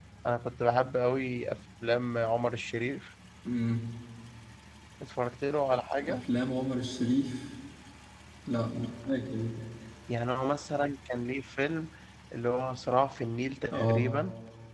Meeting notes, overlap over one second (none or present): none